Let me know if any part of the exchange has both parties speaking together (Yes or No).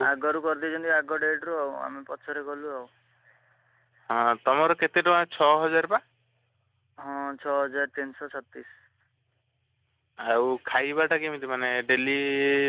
No